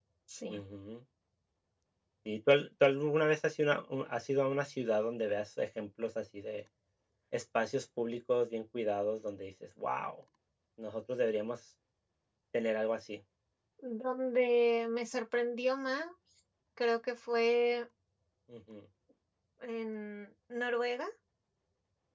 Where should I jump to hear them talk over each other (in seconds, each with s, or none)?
none